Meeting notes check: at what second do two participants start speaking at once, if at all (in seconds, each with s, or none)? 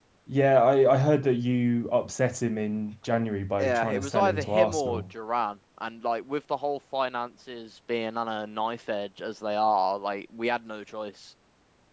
3.6 s